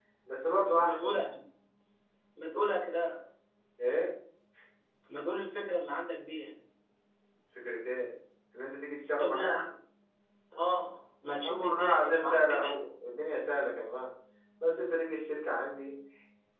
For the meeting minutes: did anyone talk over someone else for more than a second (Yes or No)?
Yes